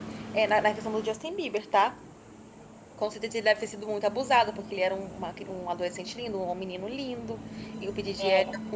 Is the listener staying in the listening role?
Yes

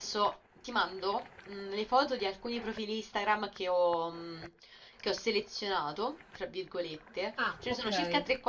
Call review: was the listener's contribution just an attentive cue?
Yes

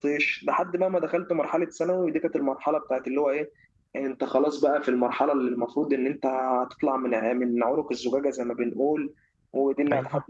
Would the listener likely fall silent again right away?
Yes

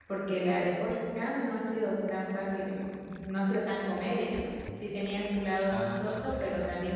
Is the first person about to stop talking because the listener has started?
No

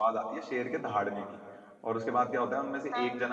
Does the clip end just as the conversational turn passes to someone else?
No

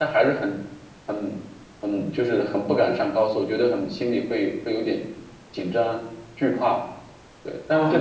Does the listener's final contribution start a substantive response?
Yes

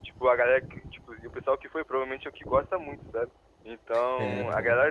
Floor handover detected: No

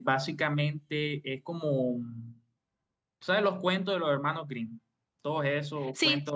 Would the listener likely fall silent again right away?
Yes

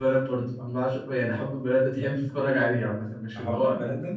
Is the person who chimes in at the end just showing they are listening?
No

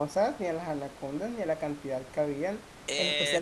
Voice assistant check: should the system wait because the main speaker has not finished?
Yes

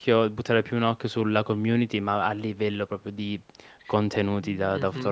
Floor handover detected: Yes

